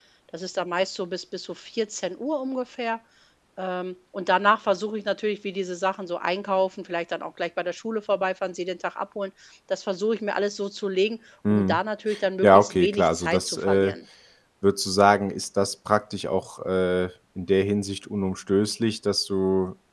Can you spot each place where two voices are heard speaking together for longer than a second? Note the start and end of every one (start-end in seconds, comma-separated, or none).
12.4-14.0